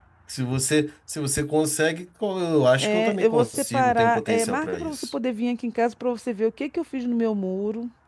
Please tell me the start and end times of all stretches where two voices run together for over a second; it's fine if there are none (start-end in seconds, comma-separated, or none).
2.8-5.0